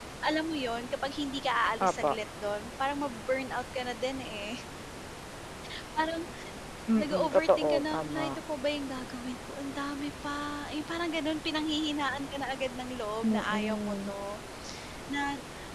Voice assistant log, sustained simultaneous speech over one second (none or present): present